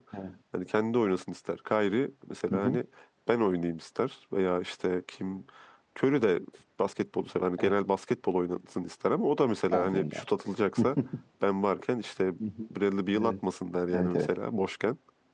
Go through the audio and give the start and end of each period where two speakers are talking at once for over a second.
none

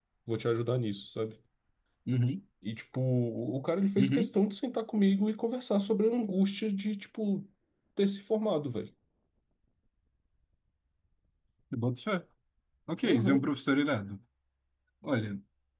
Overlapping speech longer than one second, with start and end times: none

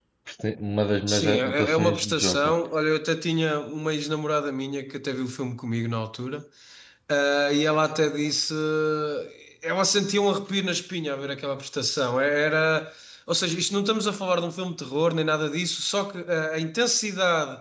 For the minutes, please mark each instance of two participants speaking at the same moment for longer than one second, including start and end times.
1.1-2.5

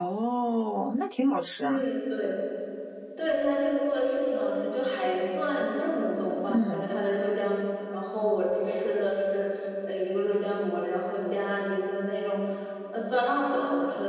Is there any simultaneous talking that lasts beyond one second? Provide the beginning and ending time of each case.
none

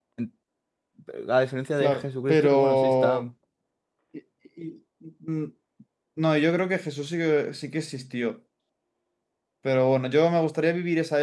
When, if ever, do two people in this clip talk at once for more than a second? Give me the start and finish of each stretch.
1.8-3.1

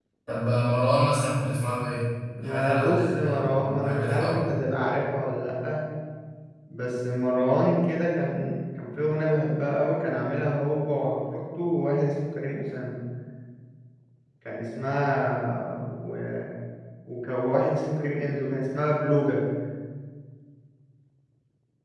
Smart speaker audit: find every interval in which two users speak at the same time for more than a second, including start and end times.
2.4-4.5

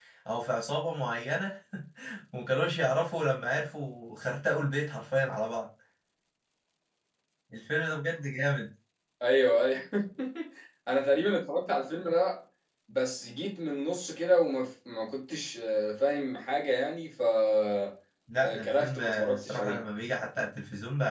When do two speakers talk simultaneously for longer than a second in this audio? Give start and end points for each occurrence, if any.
18.4-19.8

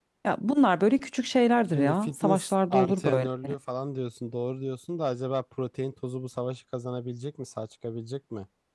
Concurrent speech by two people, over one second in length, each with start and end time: 1.7-3.3

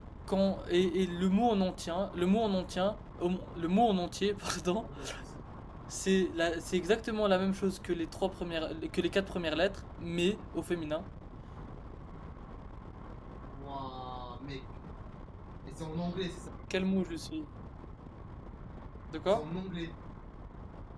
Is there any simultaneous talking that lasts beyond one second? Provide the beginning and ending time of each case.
none

